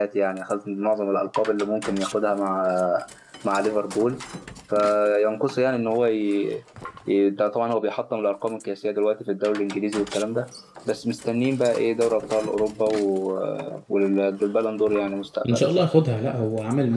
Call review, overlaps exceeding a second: none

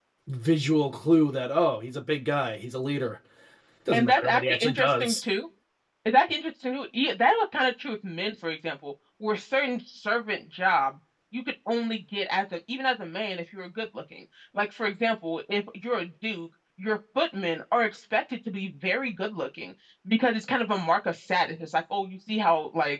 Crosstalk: present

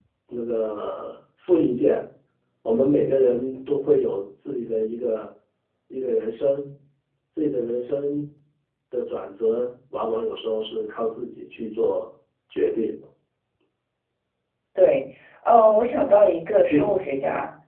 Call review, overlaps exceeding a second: none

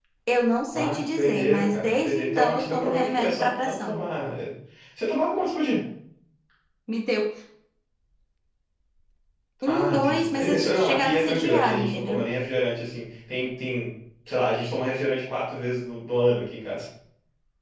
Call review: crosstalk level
present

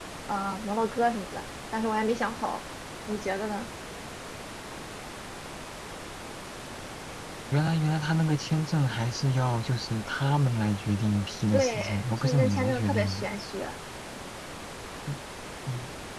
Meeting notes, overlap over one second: present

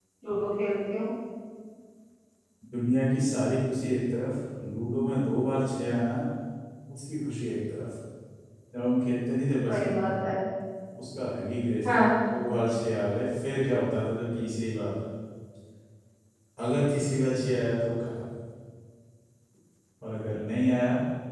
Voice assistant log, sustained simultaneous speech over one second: none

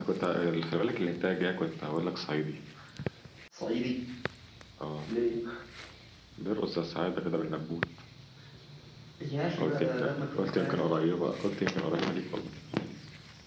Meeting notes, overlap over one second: present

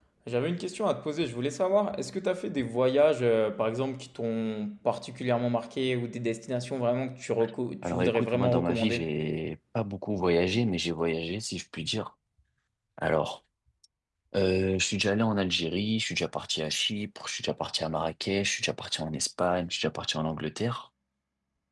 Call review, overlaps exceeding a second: present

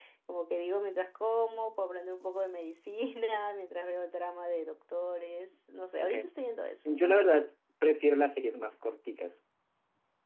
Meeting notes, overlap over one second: none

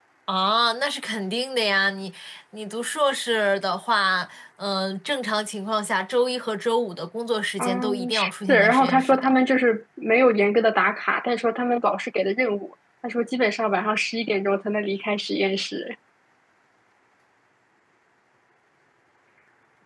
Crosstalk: present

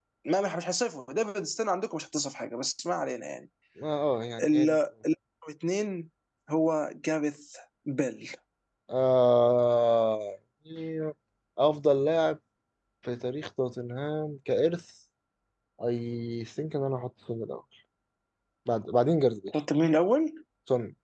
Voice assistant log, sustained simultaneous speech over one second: none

